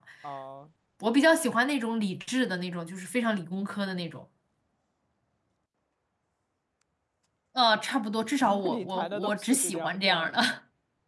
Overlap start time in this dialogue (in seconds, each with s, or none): 8.4 s